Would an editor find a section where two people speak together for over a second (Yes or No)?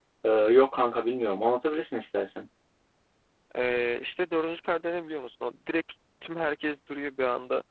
No